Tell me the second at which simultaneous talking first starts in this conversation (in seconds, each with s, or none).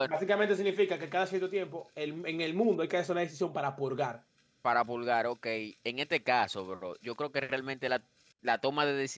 none